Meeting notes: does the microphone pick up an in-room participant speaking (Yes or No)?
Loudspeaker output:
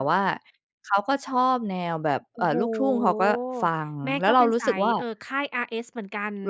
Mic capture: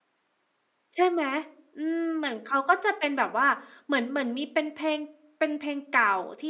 Yes